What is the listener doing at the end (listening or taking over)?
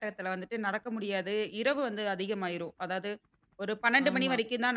listening